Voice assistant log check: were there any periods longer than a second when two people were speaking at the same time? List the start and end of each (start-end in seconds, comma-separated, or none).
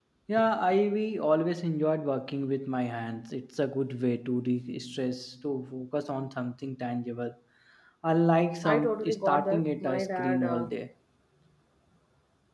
8.6-10.7